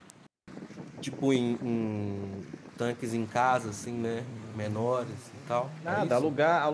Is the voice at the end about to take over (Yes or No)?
Yes